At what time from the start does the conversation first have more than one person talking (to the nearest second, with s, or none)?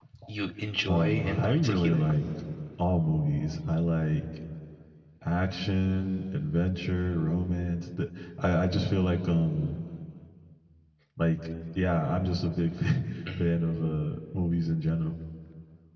1 s